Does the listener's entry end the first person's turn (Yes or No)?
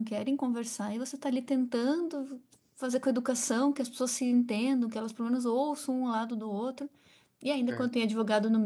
No